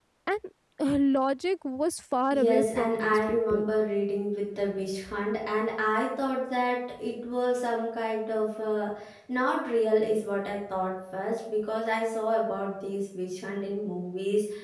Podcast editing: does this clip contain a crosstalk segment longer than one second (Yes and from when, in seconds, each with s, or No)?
Yes, from 2.3 s